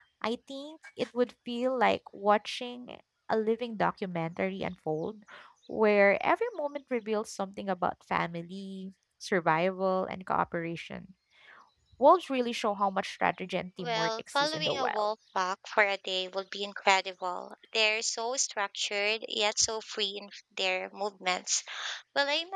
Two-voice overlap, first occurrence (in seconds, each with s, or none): 13.8 s